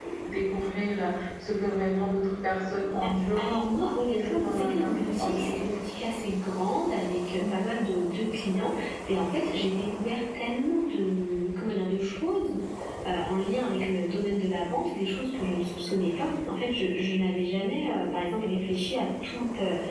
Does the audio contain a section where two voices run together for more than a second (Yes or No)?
Yes